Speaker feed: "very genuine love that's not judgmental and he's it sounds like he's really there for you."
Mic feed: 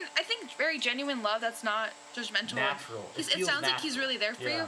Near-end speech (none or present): present